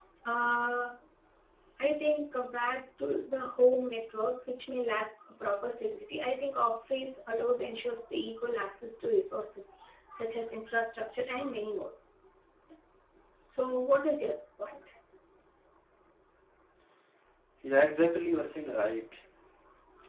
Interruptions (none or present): none